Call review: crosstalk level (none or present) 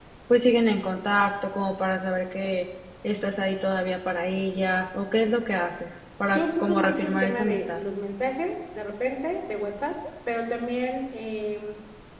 present